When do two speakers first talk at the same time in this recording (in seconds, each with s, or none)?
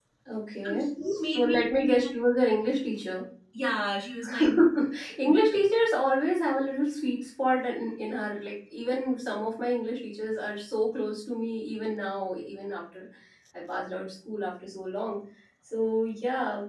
0.7 s